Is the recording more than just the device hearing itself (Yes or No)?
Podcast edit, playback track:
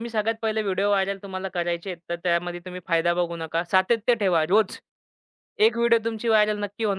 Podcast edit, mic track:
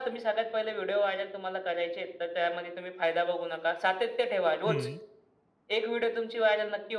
Yes